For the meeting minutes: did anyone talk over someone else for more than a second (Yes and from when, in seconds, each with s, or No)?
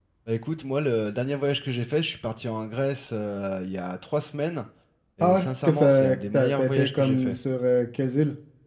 Yes, from 5.2 s